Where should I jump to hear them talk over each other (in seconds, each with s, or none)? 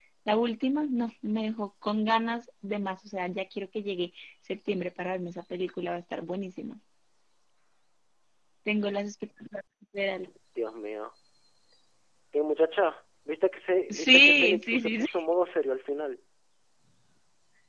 13.9 s